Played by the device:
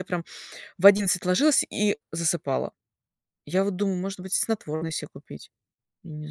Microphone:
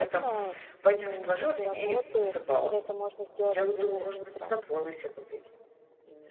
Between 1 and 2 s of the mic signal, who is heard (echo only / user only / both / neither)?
both